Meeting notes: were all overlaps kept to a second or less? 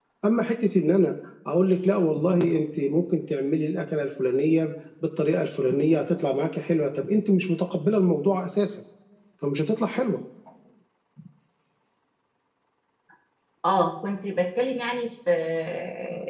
Yes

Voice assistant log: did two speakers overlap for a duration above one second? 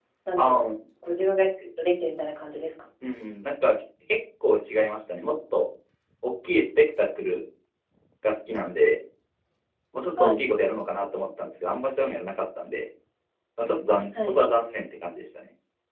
No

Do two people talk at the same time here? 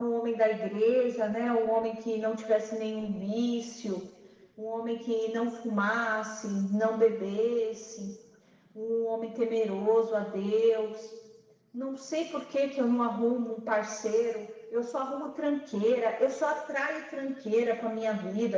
No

